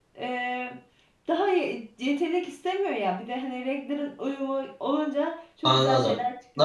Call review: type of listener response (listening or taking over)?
taking over